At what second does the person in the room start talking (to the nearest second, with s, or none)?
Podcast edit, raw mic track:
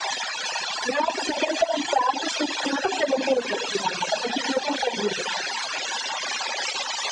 none